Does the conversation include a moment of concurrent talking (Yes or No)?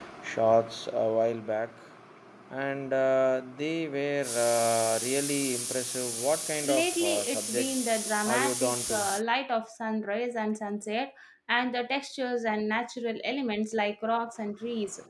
Yes